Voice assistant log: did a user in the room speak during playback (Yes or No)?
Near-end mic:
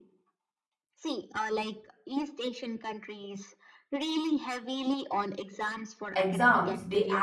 Yes